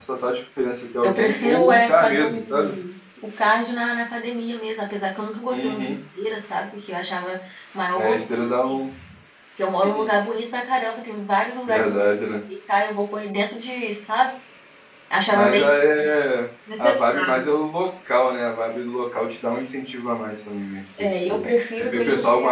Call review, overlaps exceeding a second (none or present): present